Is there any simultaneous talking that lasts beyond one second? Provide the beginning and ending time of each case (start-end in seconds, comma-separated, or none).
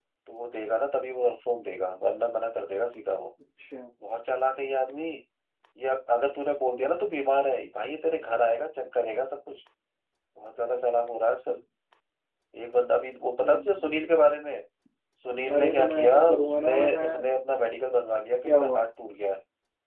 15.5-17.0